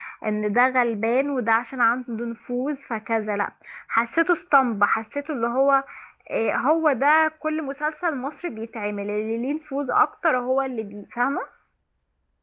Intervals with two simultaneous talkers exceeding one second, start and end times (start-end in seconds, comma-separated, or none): none